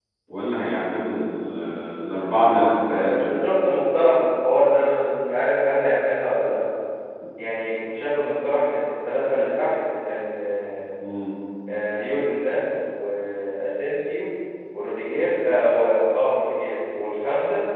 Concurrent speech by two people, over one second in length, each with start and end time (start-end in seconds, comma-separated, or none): none